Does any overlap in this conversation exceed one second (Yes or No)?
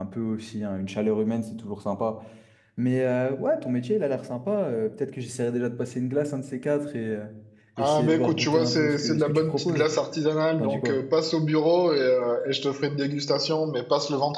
Yes